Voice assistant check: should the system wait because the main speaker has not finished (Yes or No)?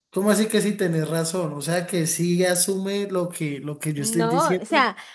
No